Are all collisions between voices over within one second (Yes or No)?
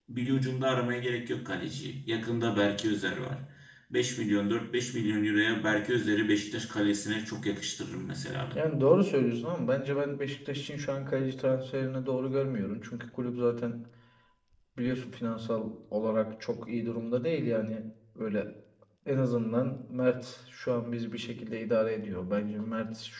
Yes